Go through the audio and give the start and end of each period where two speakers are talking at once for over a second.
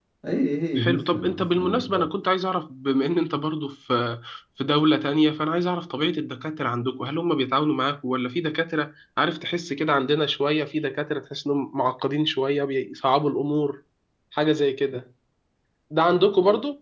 0.8-2.1

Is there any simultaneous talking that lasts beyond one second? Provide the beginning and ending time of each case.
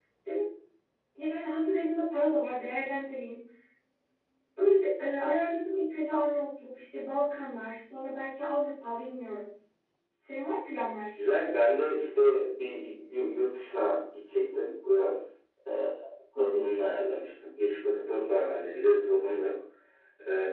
none

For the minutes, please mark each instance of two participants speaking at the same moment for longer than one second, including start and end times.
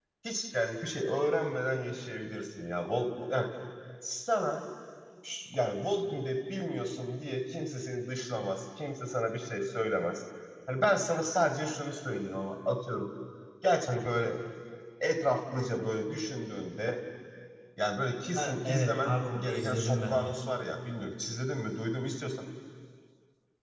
18.4-20.4

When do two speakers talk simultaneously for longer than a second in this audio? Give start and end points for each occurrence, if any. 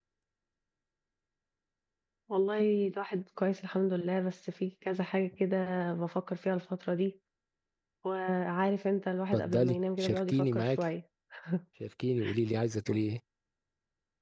9.3-10.8

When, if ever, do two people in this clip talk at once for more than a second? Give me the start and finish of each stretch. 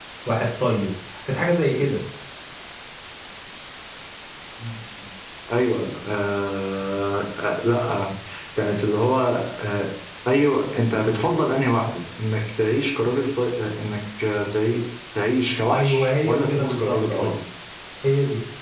15.7-17.3

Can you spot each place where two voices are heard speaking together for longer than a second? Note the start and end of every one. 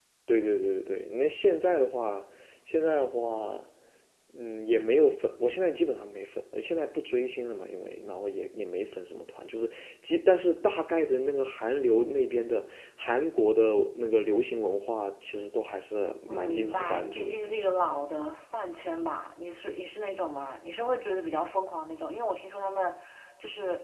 16.3-17.7

